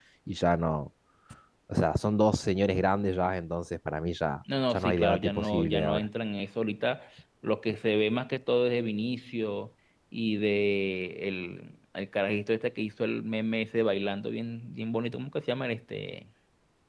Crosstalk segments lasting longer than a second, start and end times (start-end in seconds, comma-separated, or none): 4.7-6.1